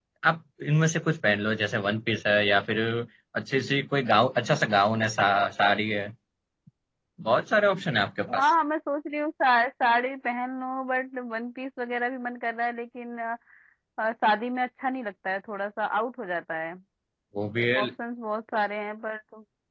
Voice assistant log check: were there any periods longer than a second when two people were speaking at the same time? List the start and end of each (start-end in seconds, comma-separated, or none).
none